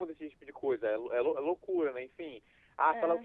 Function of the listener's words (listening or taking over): listening